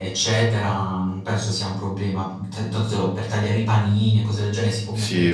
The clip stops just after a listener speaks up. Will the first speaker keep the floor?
No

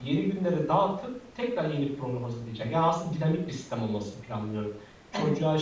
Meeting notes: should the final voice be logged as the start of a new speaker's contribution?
No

